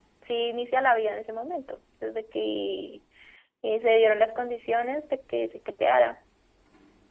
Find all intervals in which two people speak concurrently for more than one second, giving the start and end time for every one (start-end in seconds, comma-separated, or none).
none